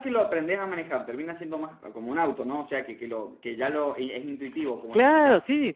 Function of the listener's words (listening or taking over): taking over